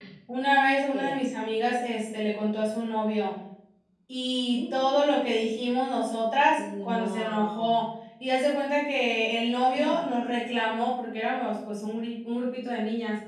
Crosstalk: present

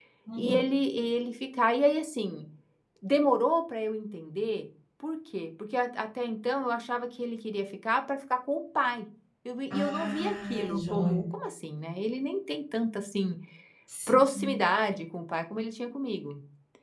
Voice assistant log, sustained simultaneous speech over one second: present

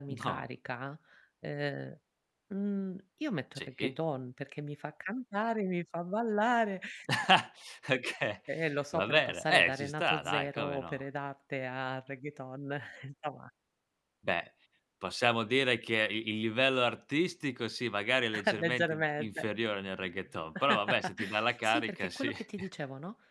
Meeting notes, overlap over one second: present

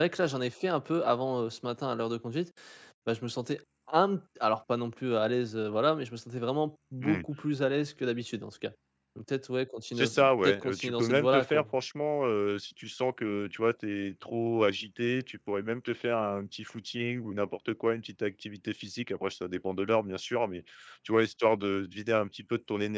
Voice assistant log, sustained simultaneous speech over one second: present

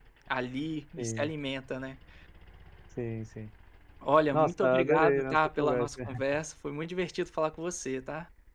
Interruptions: present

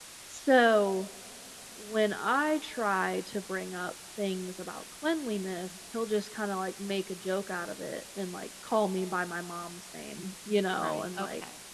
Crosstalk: present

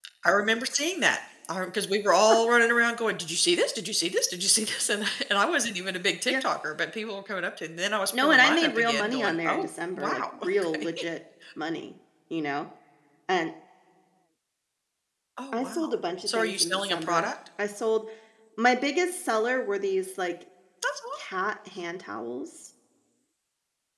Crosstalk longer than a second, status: present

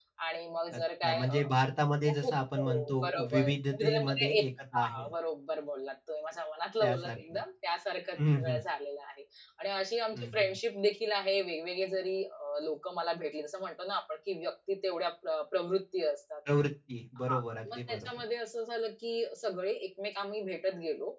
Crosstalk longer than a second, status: present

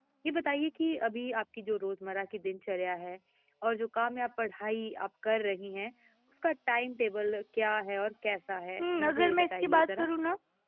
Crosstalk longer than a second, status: present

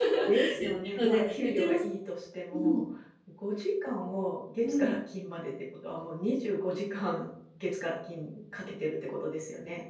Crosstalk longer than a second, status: present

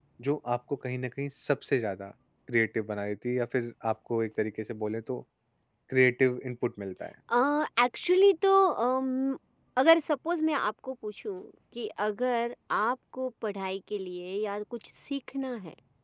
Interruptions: none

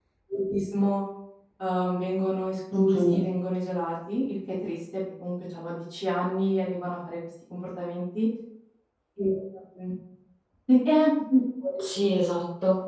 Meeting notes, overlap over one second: none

